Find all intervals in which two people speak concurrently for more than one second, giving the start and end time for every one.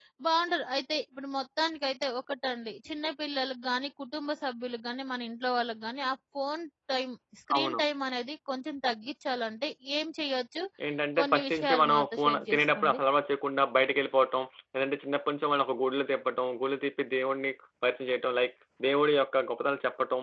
11.2-13.0

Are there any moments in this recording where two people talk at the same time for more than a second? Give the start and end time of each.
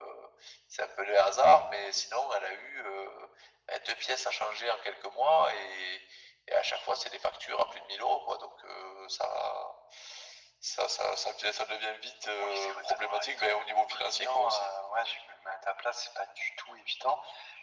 12.4-14.7

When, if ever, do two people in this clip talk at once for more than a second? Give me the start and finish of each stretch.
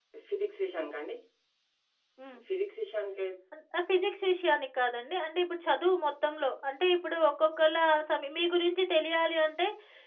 none

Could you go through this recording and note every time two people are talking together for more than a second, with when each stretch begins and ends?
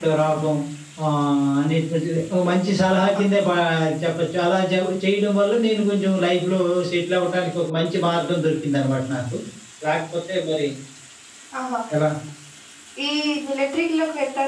none

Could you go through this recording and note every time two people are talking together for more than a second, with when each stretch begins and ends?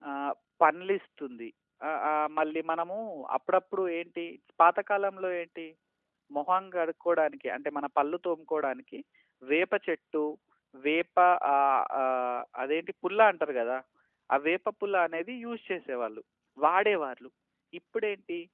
none

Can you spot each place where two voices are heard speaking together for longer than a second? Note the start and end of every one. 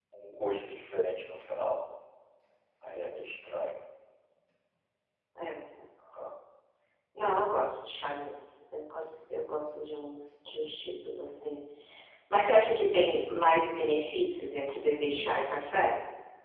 none

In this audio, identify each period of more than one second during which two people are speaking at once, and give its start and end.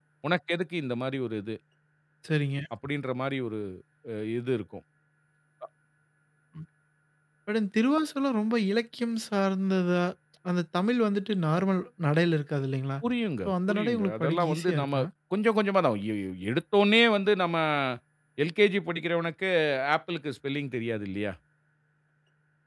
13.4-14.9

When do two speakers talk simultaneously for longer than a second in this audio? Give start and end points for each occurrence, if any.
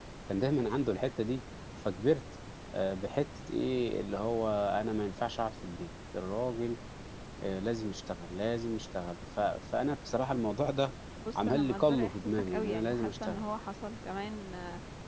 11.3-13.4

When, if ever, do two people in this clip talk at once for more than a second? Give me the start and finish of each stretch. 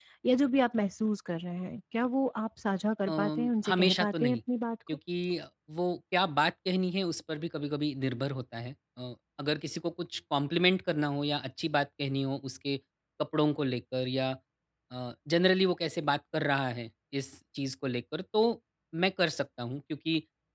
3.1-4.4

